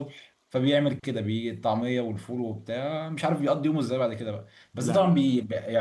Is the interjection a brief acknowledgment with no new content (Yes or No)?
Yes